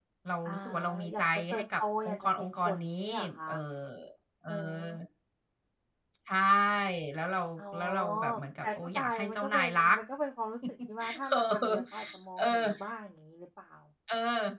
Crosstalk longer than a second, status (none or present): present